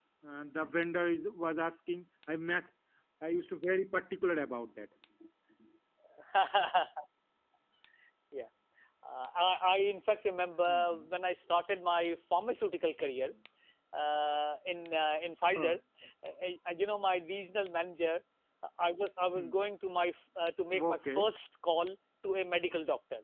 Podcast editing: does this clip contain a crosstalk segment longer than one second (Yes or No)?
No